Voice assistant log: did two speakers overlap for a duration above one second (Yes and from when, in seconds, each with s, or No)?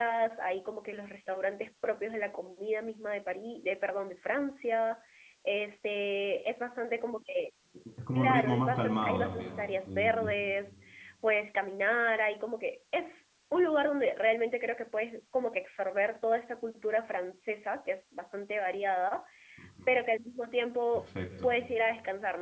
Yes, from 8.2 s